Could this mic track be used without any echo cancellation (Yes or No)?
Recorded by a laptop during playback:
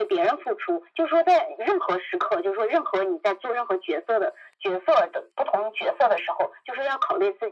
No